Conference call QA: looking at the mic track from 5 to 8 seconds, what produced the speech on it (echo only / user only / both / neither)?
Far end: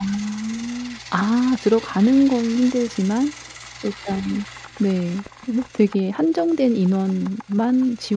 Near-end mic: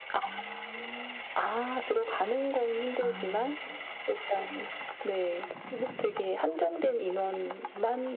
echo only